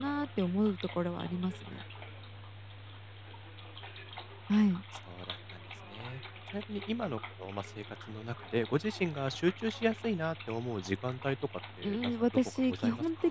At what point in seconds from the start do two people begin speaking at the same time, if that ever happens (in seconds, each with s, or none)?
11.8 s